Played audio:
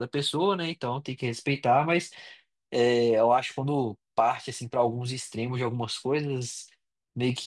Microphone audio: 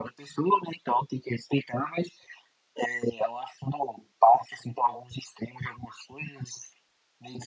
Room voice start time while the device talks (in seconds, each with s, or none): none